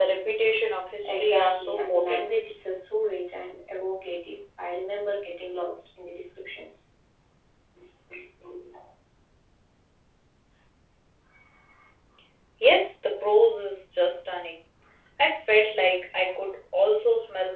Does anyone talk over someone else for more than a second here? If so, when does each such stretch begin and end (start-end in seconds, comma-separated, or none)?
1.0-2.3